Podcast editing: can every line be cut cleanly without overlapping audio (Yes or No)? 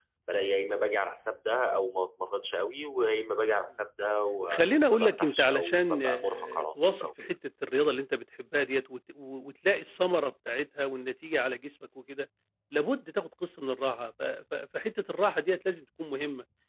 No